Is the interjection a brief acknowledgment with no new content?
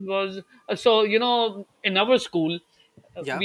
Yes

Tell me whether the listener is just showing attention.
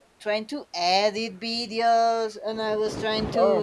Yes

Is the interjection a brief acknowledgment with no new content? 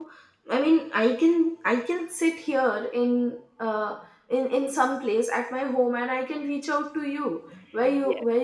Yes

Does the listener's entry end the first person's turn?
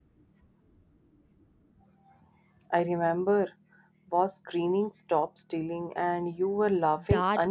Yes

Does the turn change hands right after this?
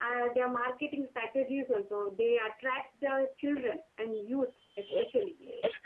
Yes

